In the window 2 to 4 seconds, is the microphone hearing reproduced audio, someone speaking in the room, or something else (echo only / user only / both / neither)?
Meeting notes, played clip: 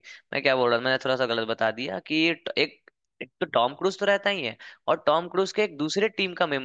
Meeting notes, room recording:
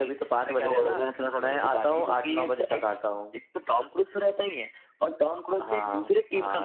both